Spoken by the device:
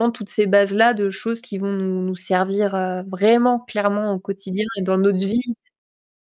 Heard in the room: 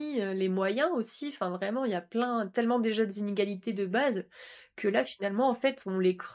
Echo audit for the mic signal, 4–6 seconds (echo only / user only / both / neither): user only